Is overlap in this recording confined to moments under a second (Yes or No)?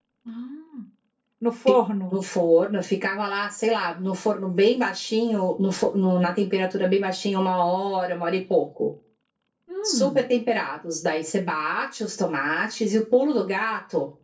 Yes